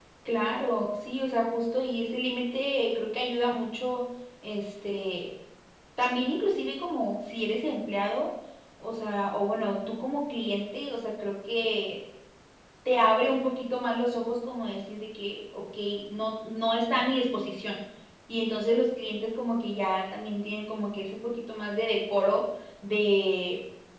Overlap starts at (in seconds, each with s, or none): none